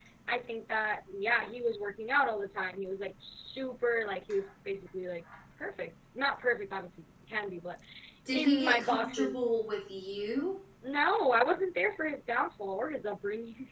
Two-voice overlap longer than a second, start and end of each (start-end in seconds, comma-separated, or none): 8.3-9.6